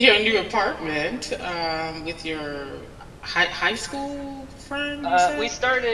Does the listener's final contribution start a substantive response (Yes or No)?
Yes